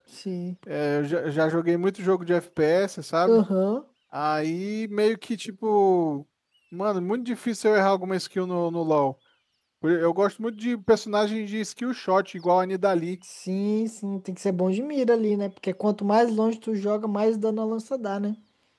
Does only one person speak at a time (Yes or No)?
Yes